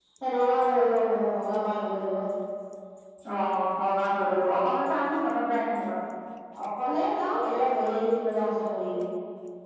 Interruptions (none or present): none